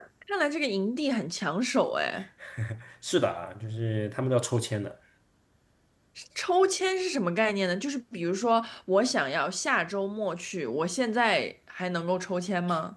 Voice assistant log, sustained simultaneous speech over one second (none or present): none